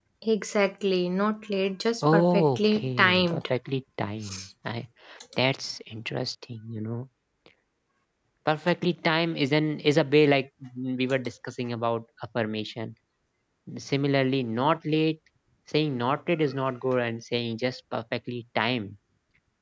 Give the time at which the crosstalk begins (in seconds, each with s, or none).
2.0 s